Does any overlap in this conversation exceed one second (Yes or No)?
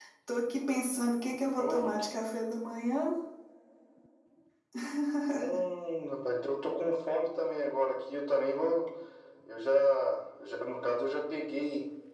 No